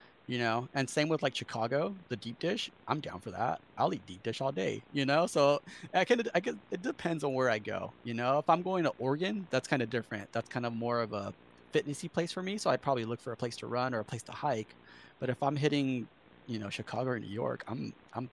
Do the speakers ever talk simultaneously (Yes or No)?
No